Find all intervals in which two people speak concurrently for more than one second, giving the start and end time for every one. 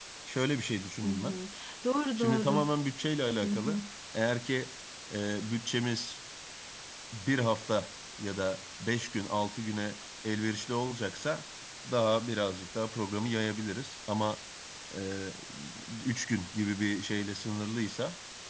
none

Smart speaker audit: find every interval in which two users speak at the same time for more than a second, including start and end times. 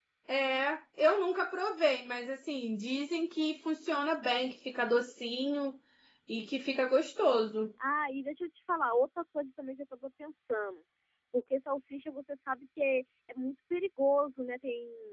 none

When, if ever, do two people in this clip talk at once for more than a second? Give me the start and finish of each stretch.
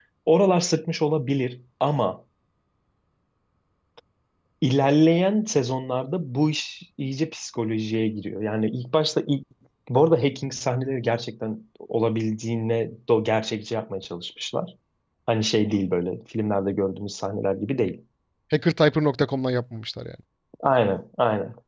none

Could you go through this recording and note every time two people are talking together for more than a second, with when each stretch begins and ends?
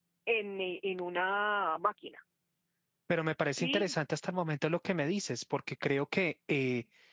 none

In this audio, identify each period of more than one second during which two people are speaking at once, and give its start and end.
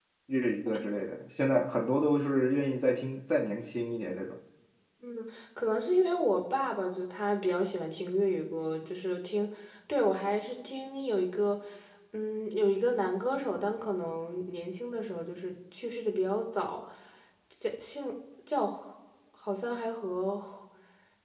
none

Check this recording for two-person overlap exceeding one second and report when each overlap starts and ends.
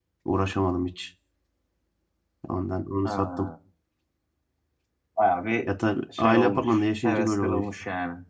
6.2-7.6

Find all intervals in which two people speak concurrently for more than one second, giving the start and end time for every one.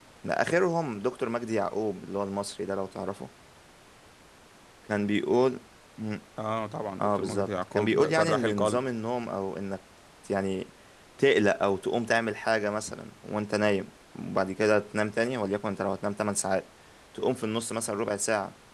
7.0-8.8

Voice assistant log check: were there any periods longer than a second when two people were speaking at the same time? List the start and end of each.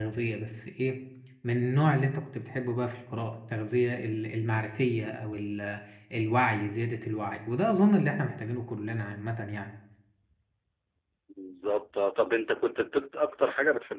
none

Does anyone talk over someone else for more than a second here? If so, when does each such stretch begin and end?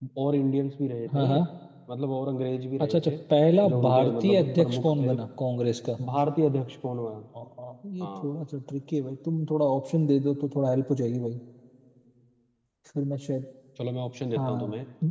3.7-5.1

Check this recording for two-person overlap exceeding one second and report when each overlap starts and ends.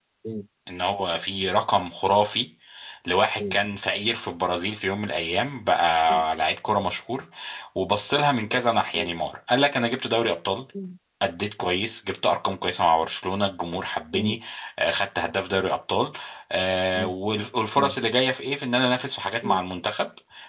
none

